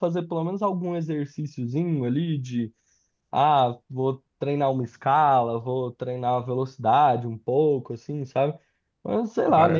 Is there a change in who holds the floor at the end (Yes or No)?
No